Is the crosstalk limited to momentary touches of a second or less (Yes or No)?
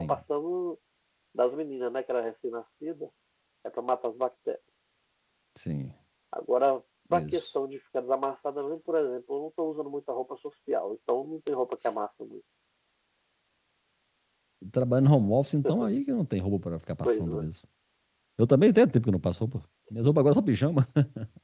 Yes